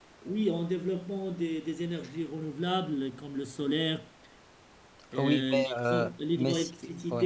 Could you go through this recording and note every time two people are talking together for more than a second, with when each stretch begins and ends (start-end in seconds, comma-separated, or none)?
5.2-6.7